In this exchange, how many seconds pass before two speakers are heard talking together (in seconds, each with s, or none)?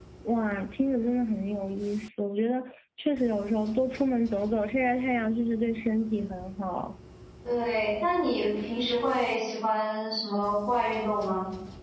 none